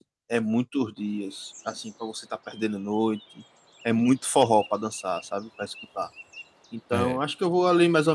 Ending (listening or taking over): listening